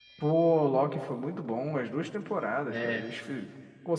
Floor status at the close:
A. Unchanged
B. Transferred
A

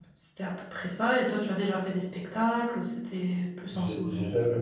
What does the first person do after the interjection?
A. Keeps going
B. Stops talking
B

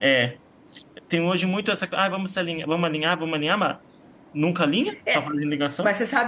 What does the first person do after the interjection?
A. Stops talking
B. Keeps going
A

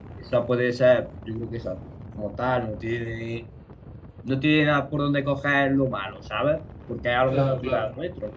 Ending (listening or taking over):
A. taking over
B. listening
B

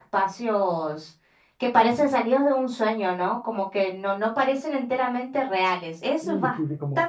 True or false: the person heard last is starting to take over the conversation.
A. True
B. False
A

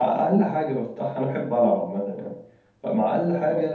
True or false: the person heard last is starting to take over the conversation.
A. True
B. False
B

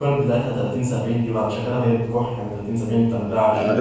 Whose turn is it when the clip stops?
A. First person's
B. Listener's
B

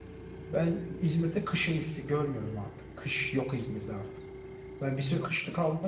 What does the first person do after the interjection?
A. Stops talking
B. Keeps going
B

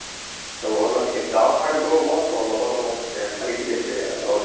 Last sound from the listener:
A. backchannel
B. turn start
A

